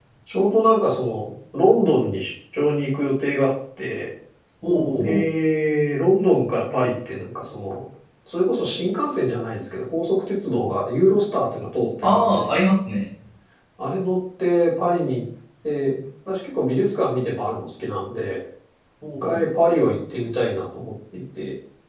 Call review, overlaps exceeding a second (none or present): none